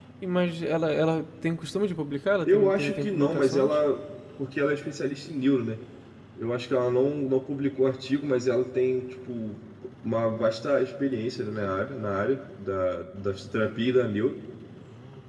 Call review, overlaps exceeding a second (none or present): present